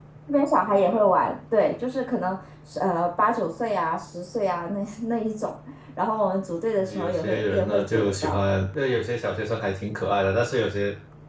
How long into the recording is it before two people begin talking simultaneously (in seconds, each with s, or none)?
6.8 s